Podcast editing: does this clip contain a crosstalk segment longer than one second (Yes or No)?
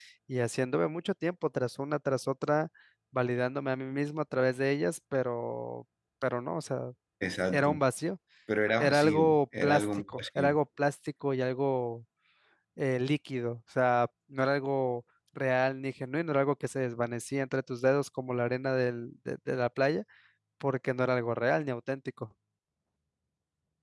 Yes